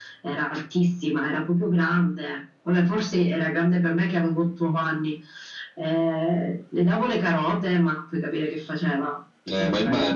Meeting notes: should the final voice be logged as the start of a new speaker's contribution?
Yes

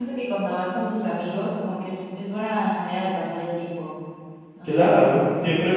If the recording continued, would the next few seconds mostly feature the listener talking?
Yes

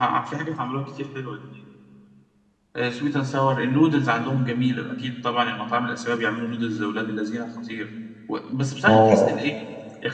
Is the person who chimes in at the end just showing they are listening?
Yes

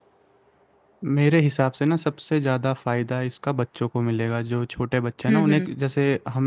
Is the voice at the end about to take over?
No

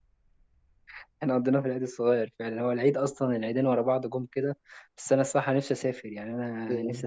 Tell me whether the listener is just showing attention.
No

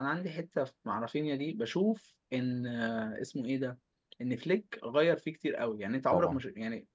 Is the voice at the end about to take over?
No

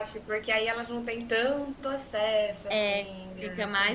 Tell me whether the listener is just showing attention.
No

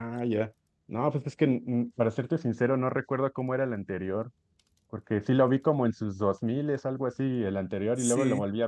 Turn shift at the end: No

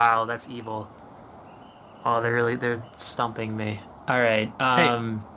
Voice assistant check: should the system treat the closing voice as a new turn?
Yes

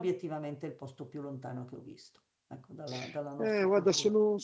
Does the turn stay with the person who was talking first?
No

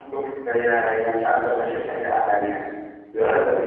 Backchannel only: Yes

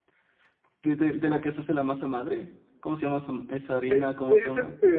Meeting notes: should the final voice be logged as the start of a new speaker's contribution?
Yes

